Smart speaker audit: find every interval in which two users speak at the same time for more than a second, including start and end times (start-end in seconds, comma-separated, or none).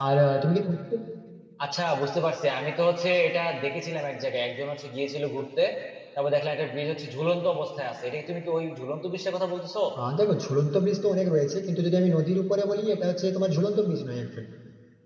none